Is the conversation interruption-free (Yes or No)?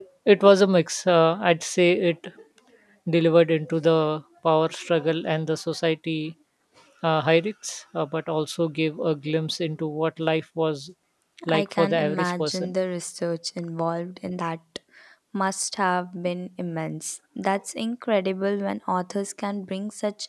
No